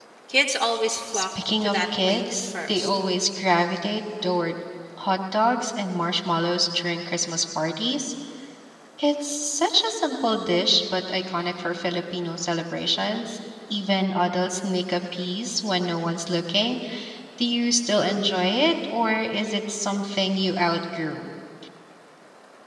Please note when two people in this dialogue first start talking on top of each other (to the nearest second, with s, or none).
1 s